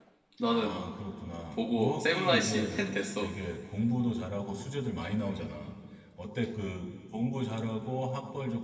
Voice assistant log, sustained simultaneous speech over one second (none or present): present